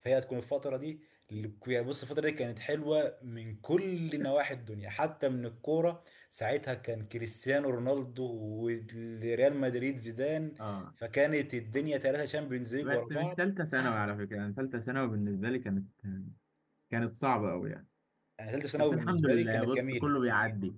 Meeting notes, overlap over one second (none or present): present